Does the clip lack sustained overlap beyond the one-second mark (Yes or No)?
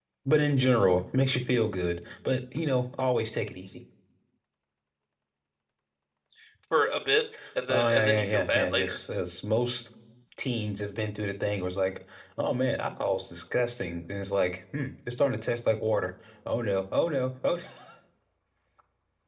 No